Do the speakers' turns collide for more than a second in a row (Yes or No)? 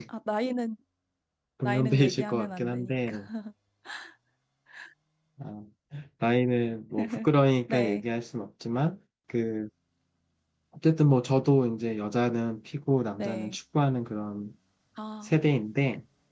Yes